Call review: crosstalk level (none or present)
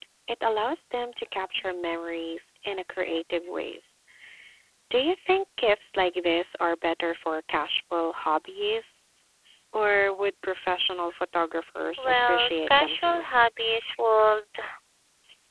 present